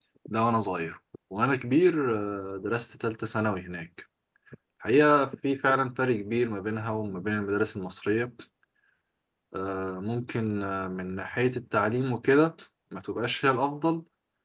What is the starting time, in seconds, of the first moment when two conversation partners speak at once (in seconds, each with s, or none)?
none